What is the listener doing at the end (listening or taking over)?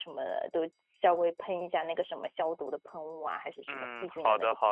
taking over